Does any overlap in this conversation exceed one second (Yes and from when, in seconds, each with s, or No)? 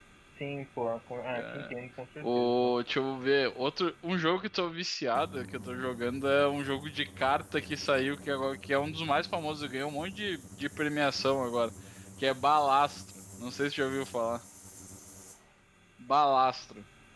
No